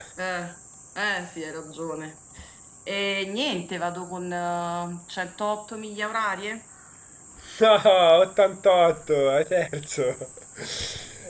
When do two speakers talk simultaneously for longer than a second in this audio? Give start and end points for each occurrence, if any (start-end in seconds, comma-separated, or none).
none